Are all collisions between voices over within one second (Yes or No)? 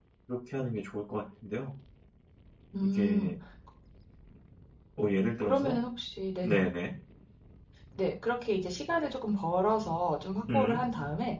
Yes